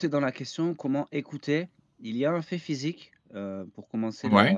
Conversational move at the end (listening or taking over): listening